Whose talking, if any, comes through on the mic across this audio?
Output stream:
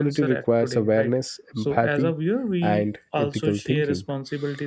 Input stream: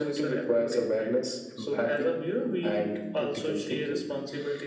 echo only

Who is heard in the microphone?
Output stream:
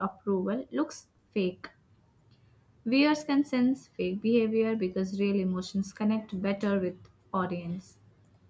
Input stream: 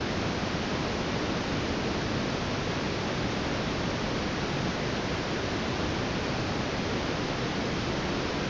neither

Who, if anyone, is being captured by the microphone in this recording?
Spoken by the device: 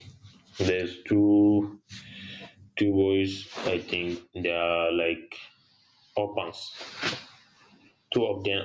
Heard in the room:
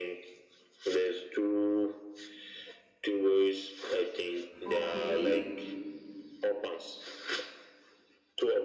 both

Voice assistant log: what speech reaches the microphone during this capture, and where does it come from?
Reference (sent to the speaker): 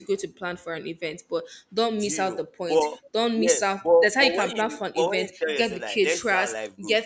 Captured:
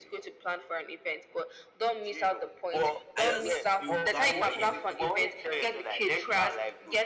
both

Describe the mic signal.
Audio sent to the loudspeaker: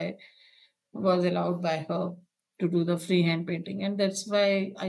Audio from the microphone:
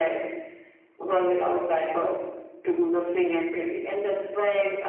echo only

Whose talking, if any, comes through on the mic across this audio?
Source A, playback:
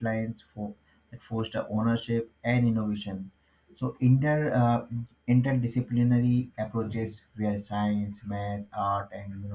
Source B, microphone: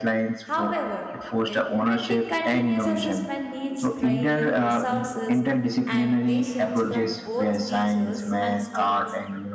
both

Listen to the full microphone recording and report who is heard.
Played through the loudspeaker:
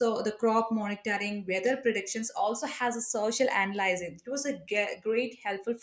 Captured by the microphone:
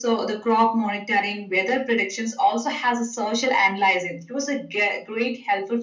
echo only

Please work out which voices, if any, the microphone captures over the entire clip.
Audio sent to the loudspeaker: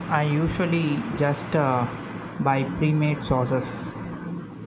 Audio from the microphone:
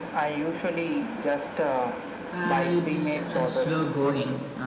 both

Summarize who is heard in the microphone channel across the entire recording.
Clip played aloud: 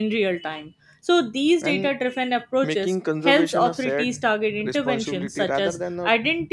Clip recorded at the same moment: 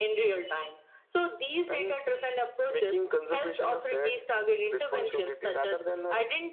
echo only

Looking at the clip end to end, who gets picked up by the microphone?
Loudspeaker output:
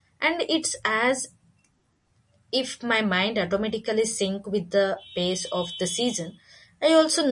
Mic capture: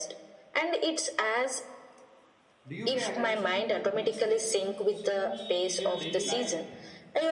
both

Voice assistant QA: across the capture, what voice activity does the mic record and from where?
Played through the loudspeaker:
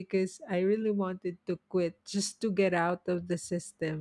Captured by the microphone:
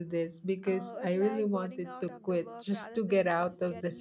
both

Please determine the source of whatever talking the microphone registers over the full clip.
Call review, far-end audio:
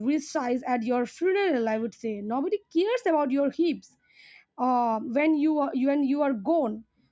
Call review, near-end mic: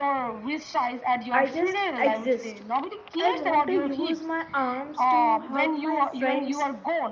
both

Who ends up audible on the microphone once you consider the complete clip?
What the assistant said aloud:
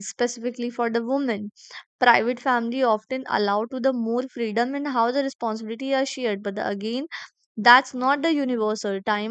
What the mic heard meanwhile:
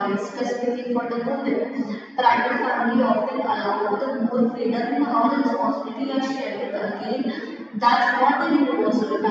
echo only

